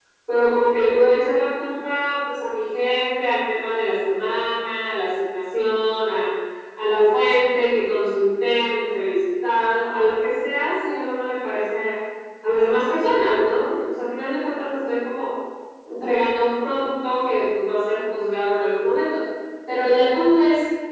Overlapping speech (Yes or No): No